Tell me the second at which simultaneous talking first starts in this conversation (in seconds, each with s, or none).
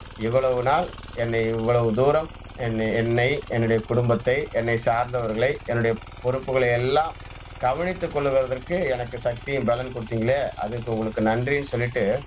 none